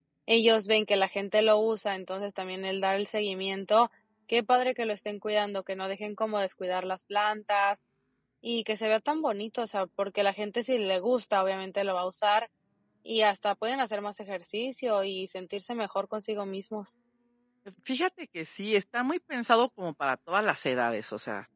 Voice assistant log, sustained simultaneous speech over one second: none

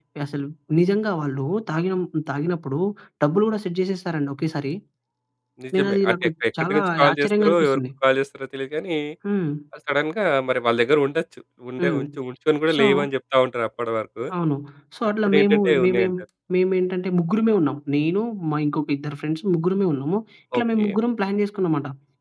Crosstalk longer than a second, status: present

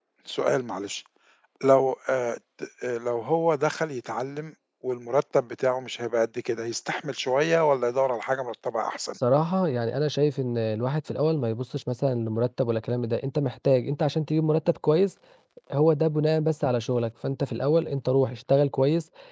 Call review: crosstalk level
none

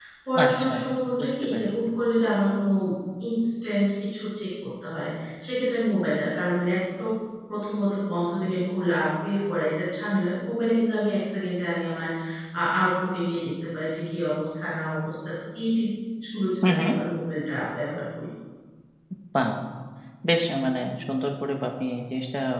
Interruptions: present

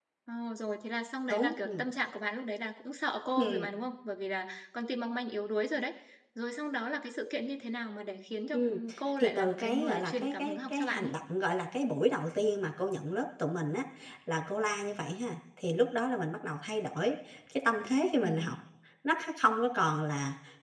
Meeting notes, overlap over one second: present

